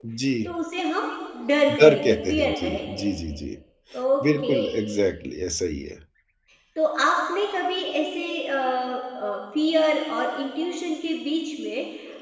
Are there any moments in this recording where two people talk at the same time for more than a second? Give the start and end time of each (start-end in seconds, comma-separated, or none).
1.8-3.1